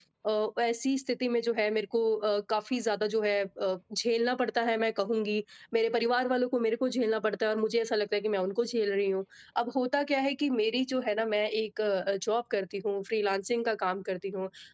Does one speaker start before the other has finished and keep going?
No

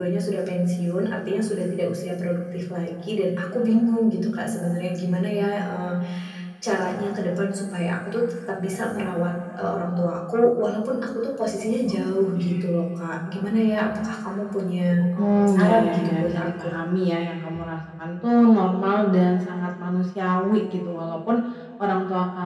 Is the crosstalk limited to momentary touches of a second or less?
No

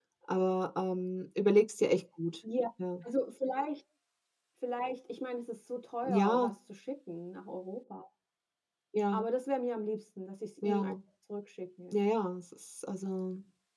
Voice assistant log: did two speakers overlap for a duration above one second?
No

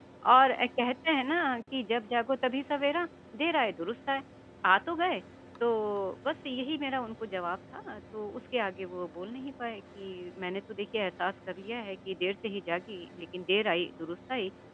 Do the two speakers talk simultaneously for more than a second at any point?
No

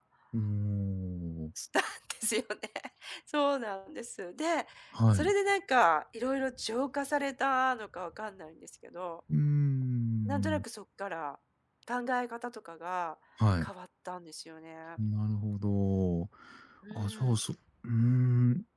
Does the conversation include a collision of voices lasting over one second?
No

